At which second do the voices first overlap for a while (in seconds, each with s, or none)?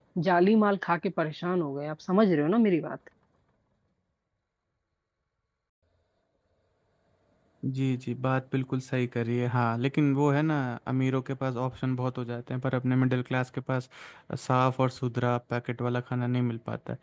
none